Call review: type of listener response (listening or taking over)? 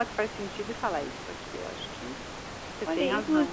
taking over